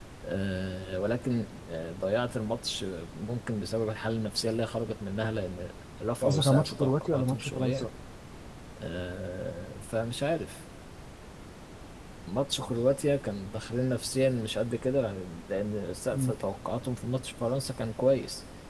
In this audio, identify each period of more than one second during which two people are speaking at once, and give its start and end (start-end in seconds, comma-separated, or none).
6.2-7.9